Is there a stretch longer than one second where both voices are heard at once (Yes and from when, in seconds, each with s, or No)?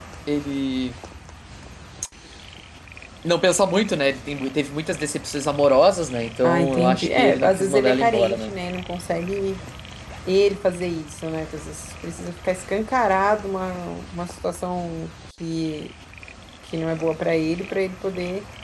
Yes, from 6.4 s